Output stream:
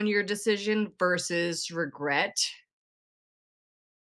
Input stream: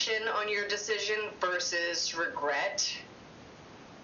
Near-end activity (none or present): none